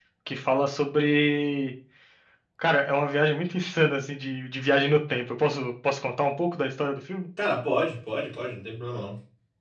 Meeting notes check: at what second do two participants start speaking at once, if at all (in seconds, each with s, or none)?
none